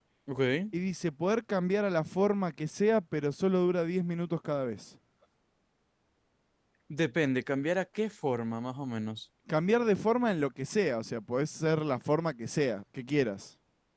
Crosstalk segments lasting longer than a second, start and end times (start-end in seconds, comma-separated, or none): none